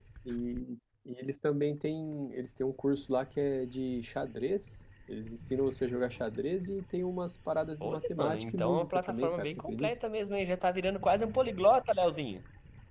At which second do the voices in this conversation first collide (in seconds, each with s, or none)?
7.8 s